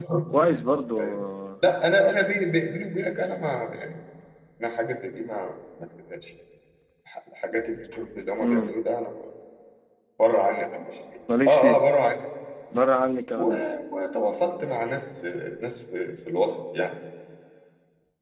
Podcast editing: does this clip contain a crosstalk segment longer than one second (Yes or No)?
No